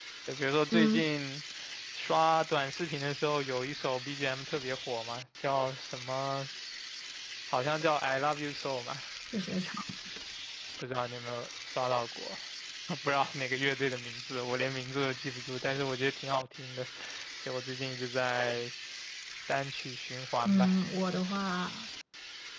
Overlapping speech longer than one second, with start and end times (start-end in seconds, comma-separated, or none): none